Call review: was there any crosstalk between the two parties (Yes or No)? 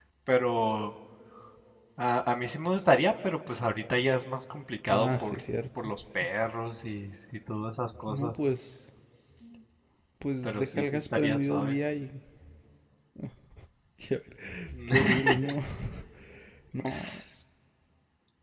Yes